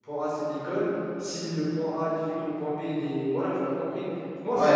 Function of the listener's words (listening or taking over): taking over